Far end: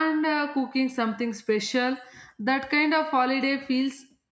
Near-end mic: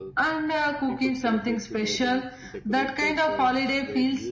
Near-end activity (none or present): present